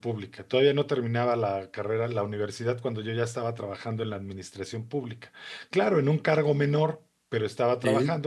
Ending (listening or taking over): listening